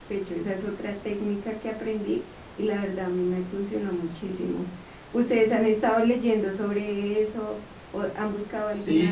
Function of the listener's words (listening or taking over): taking over